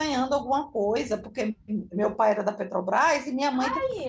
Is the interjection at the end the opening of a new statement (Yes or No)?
No